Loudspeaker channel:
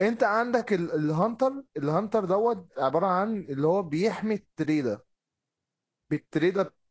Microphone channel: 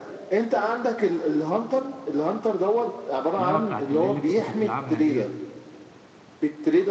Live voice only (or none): اللعبة بتاعت اللي, اللي انت كنت بتلعبها ديت